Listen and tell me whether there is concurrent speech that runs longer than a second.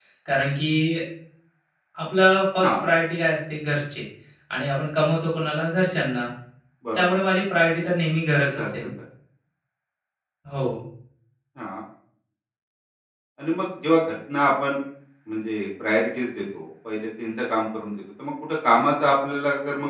No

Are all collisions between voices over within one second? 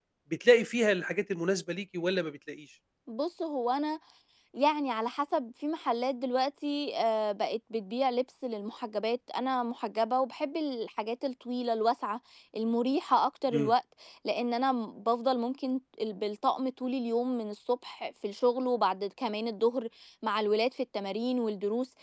Yes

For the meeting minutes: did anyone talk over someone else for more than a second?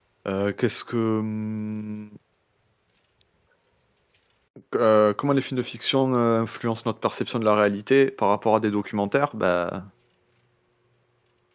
No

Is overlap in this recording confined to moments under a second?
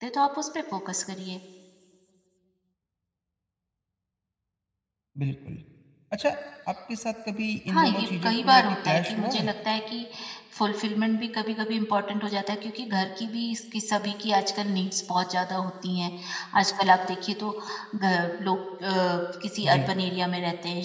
No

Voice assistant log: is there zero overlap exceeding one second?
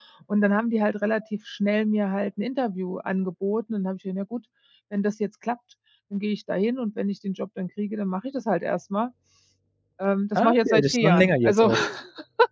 No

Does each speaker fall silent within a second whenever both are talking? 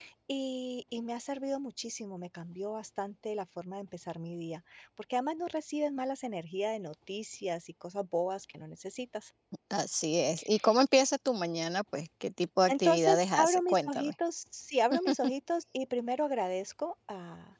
No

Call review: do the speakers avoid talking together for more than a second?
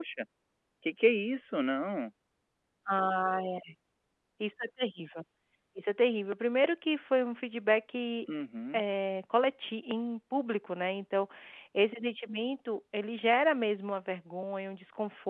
Yes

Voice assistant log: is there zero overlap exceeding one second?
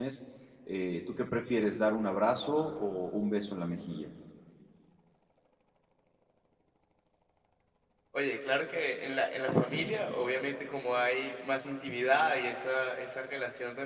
Yes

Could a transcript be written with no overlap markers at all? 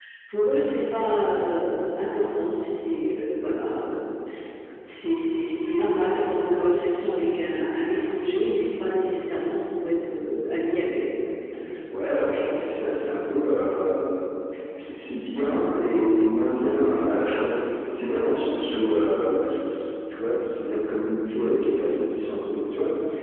Yes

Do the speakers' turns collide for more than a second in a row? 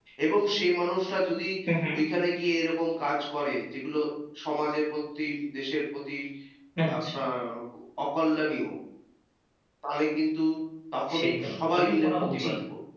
Yes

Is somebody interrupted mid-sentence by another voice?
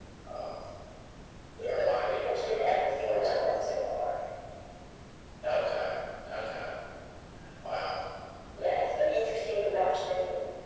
Yes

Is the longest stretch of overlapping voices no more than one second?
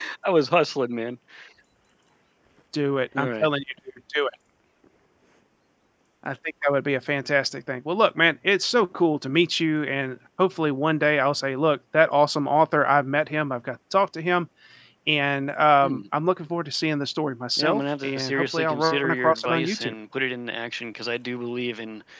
No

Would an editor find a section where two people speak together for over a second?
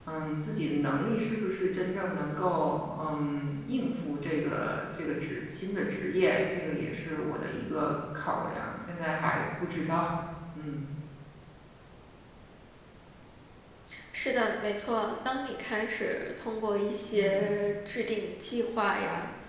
No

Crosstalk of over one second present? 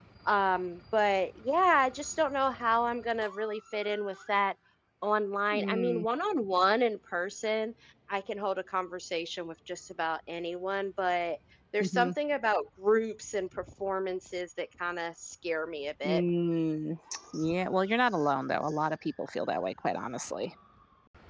No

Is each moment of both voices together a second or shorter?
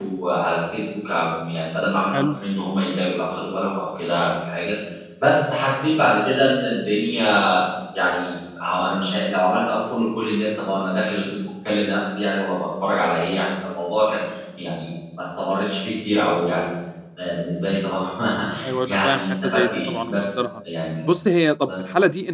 No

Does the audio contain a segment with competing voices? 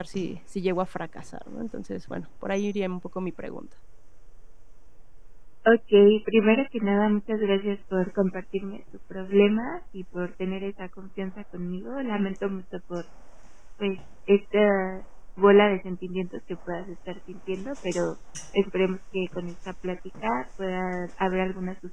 No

